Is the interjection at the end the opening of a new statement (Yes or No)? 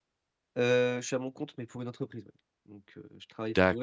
Yes